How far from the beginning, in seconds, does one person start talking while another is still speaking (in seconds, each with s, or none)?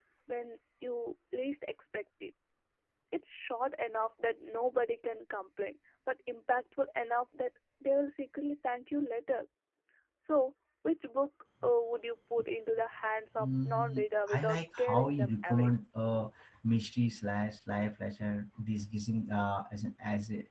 13.4 s